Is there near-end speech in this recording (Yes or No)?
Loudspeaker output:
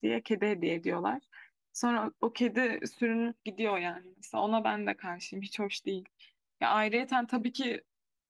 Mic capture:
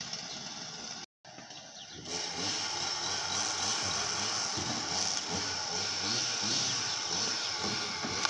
No